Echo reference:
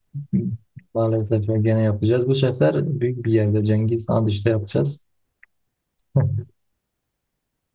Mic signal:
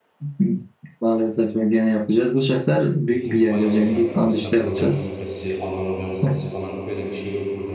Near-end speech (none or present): present